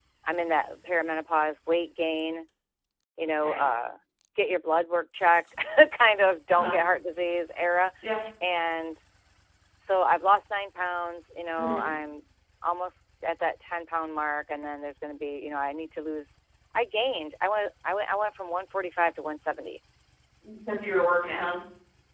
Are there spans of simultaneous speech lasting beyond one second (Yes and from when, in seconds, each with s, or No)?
No